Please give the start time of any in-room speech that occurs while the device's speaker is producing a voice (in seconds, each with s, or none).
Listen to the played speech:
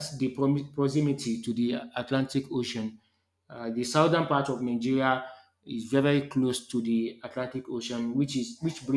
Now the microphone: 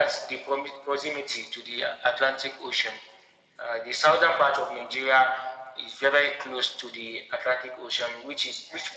none